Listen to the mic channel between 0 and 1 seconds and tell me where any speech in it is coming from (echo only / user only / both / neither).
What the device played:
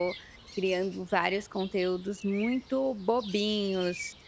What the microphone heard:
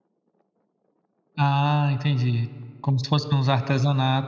neither